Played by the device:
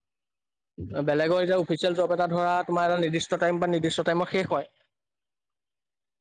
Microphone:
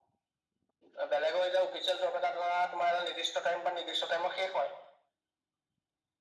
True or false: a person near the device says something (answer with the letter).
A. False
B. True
A